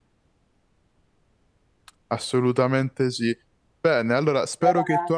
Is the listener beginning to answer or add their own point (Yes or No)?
No